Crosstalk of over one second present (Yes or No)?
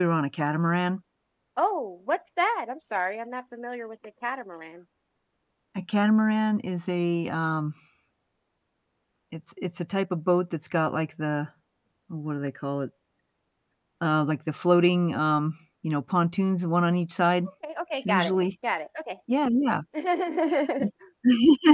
No